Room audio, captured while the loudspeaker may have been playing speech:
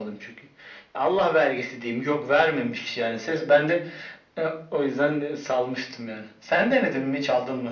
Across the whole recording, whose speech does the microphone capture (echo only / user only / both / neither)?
echo only